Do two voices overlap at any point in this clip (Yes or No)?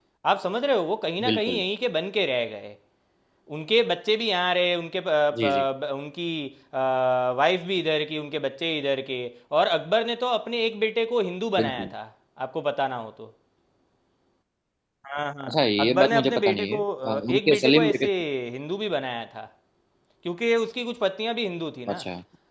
Yes